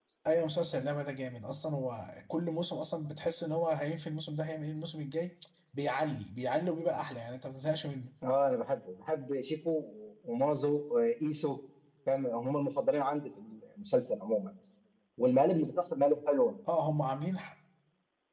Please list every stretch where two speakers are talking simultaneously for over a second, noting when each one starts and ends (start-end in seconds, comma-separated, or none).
none